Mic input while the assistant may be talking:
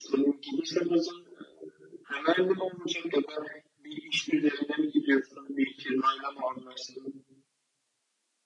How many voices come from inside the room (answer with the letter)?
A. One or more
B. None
B